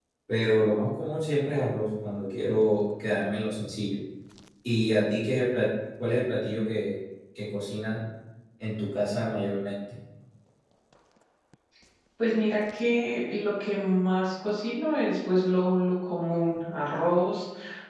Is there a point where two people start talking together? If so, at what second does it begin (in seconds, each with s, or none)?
none